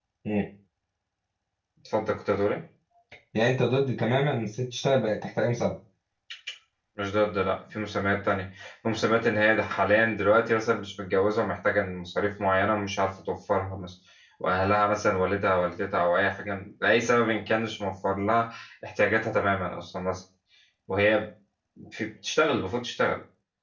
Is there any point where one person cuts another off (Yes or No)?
No